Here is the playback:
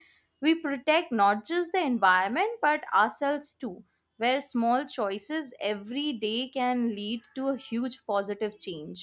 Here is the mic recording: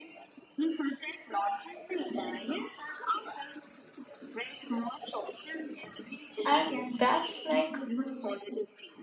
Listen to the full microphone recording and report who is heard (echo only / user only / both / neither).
both